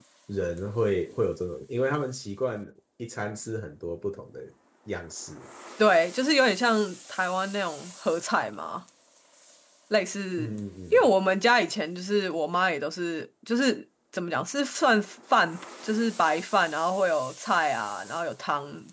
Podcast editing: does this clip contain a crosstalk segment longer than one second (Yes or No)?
No